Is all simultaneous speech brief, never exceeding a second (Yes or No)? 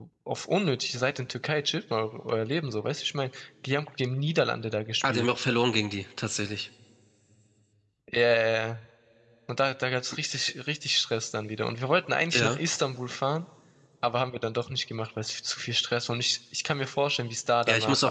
Yes